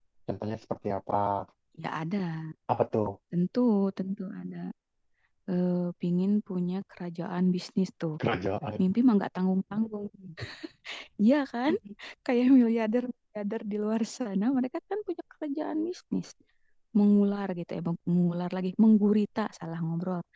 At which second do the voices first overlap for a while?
none

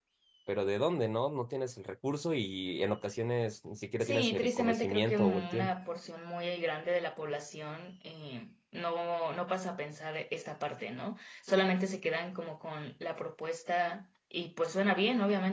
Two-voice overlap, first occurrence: 4.0 s

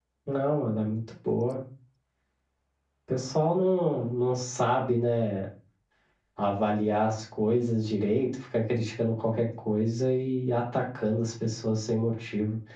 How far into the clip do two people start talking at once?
none

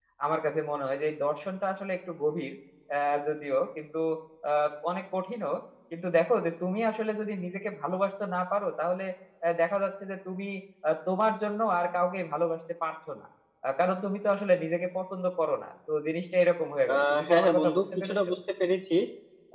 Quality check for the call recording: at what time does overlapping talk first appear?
16.9 s

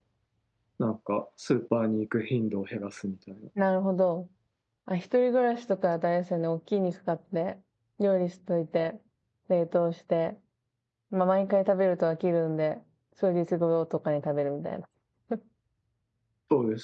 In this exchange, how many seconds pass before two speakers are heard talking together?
none

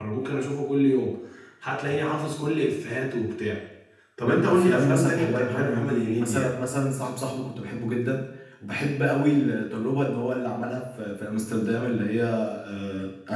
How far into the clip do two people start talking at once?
4.3 s

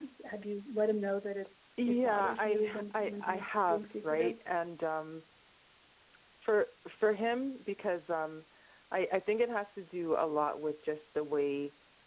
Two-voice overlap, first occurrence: 1.8 s

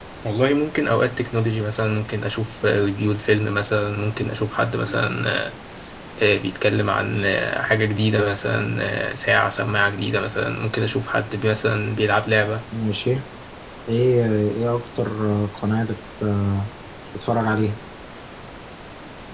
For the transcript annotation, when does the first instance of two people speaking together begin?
none

